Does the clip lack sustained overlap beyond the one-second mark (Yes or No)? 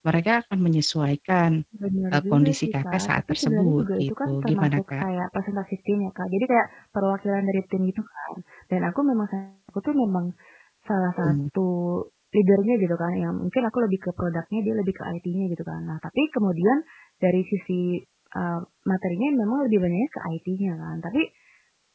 No